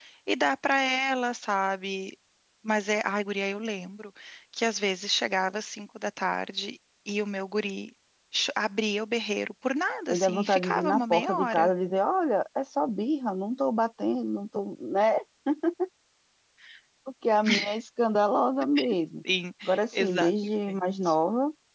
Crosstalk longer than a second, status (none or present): present